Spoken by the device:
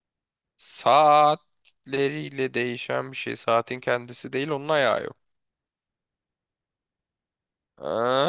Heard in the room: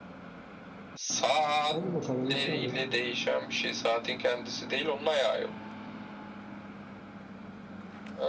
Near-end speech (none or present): present